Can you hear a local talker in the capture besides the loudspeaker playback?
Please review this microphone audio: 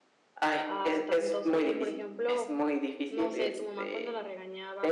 Yes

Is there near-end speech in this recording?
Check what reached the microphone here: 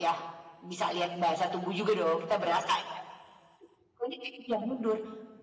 No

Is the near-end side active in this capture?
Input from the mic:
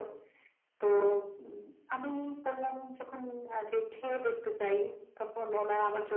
No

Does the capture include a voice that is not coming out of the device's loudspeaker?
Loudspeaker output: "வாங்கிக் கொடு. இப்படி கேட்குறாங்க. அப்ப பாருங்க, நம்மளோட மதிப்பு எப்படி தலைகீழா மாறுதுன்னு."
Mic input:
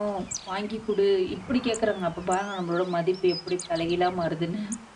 No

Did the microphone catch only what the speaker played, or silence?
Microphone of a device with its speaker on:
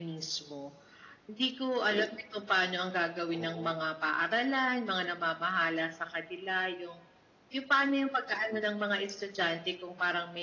No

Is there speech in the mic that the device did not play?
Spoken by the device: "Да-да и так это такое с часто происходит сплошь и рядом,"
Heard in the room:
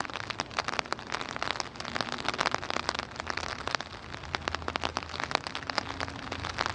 No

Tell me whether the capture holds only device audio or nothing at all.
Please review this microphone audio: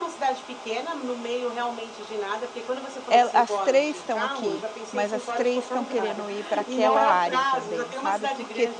No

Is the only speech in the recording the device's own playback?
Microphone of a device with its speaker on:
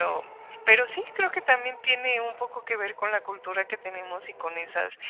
Yes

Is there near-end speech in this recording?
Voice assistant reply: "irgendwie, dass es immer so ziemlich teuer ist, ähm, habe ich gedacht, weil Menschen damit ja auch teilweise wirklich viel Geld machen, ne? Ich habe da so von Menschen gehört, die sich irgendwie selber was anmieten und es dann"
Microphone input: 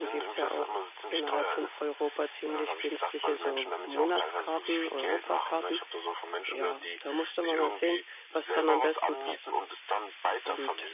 Yes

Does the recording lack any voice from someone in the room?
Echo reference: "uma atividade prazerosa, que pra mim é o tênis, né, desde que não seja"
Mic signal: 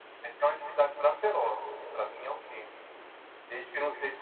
Yes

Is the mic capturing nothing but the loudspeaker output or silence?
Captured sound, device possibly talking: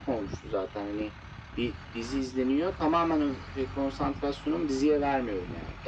Yes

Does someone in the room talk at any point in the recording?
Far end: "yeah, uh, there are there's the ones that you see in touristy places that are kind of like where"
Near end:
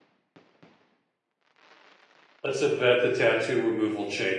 Yes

